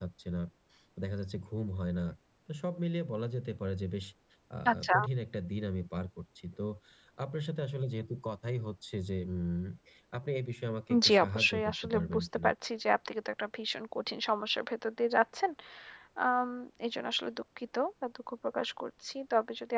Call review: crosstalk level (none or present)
present